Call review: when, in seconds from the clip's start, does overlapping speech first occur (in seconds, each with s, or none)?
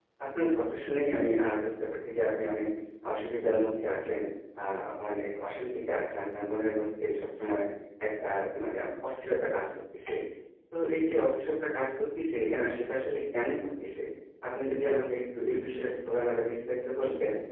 none